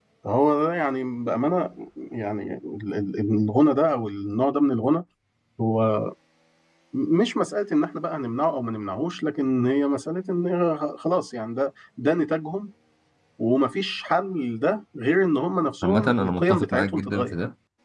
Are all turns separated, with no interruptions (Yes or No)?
No